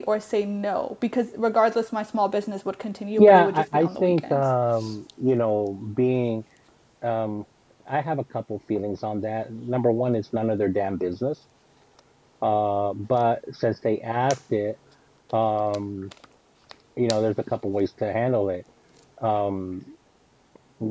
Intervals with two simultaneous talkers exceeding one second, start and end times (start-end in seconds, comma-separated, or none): 3.2-4.4